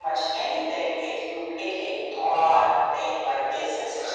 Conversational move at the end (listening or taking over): taking over